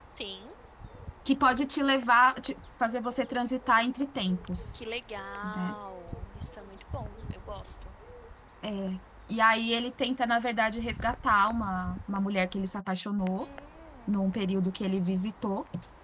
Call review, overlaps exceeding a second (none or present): none